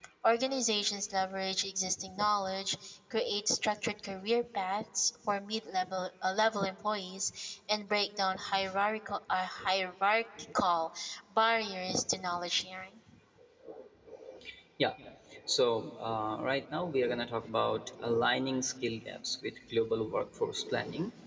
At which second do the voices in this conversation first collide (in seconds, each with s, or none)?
none